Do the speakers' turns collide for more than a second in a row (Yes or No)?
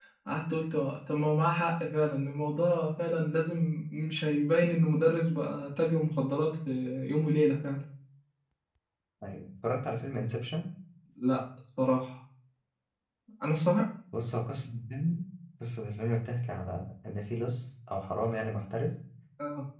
No